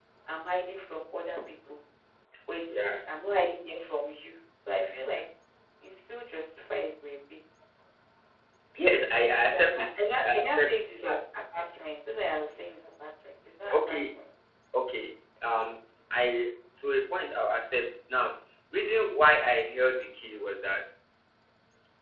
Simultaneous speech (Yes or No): Yes